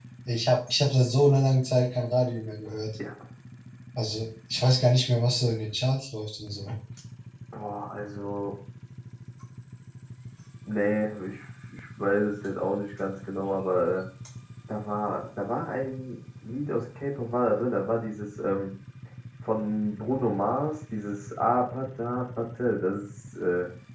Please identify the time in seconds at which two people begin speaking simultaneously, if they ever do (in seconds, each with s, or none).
none